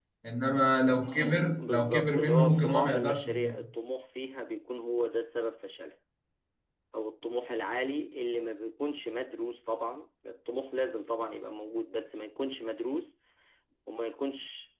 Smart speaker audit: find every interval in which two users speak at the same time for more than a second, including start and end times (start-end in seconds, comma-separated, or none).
1.6-3.6